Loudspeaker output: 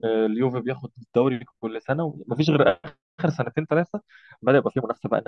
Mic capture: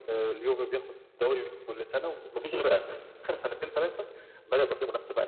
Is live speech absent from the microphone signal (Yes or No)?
Yes